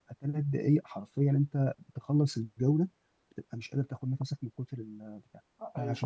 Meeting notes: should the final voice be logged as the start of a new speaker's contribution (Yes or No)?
No